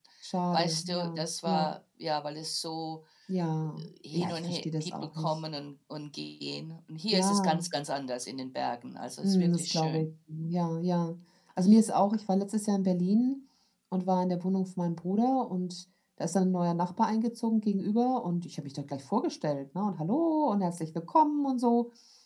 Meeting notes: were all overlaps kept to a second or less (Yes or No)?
No